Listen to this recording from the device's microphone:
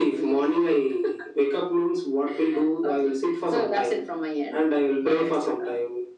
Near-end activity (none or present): none